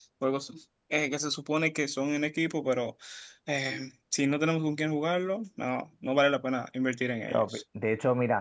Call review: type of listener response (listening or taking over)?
taking over